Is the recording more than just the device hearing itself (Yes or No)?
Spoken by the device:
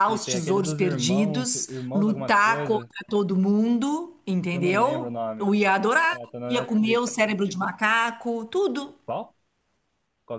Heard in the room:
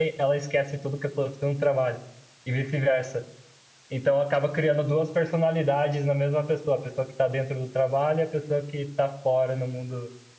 Yes